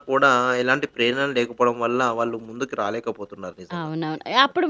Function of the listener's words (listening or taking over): taking over